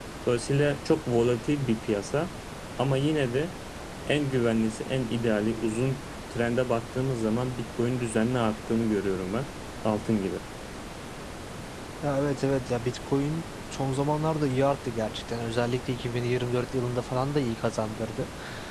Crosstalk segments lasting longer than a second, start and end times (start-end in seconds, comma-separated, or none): none